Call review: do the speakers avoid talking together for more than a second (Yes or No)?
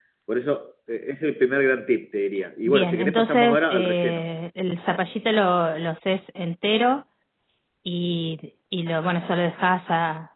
No